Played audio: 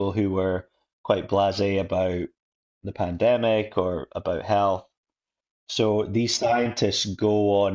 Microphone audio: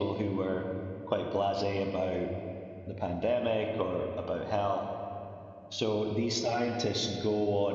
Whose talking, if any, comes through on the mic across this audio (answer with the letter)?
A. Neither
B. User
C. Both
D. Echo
D